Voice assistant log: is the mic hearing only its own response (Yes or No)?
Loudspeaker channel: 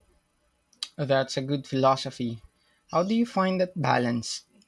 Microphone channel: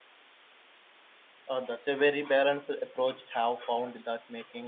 No